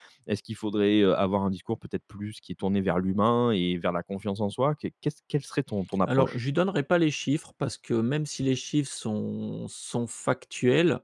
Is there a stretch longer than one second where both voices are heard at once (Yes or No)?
No